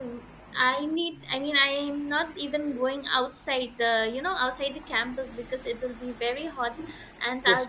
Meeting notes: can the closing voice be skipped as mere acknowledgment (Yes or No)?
No